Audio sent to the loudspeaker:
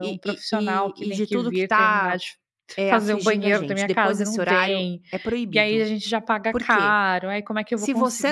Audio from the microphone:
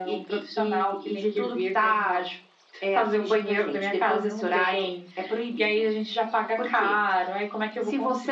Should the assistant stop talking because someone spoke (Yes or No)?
No